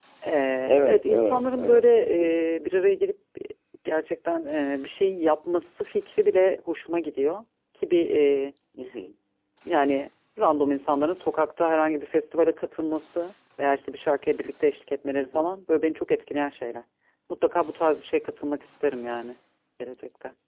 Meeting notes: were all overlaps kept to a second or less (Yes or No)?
No